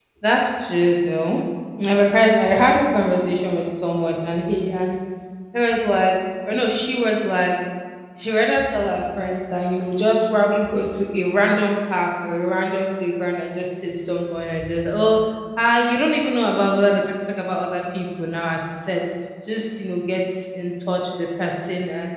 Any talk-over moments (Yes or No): No